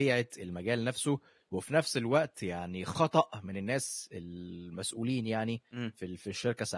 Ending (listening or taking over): listening